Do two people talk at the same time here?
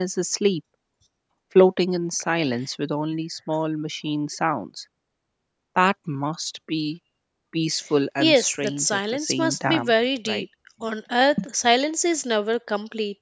Yes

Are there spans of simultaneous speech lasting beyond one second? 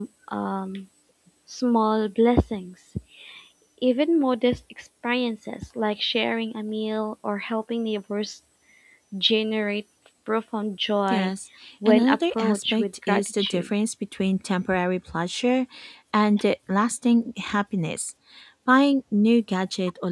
Yes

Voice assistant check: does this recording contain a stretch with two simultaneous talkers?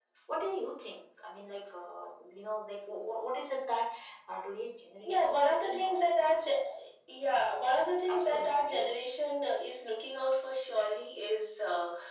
Yes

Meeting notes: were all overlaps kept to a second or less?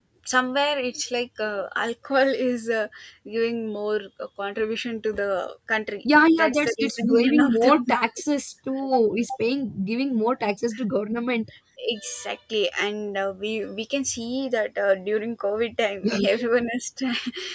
No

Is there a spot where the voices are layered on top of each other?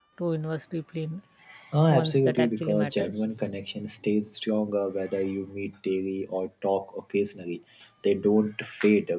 Yes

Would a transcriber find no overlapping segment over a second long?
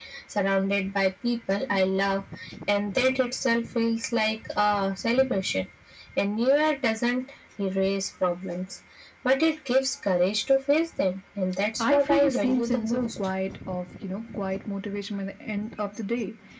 No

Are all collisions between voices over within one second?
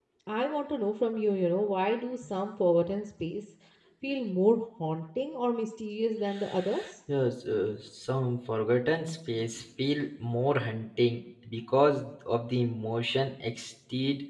Yes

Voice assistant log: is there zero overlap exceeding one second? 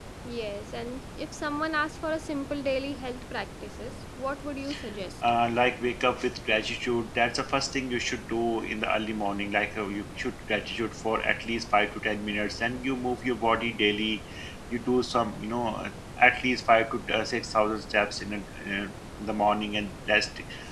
Yes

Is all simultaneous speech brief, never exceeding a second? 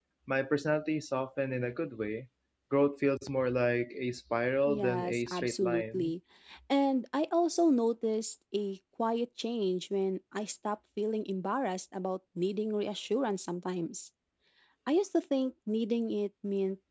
No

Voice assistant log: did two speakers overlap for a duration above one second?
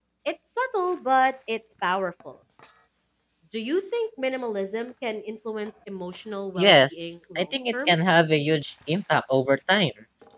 Yes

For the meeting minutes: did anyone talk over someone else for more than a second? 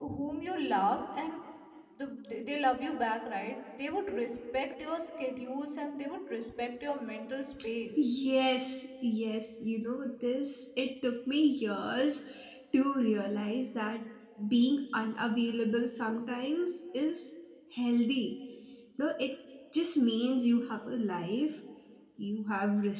No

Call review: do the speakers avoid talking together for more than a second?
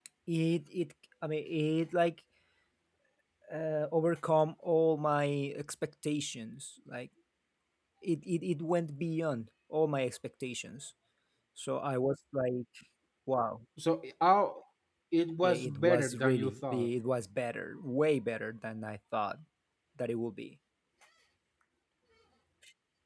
No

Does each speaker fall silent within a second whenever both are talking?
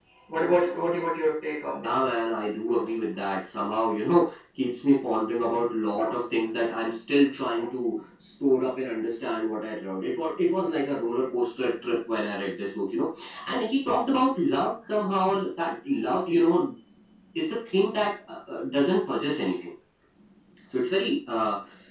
Yes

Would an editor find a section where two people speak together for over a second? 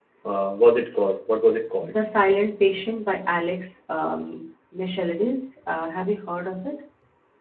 No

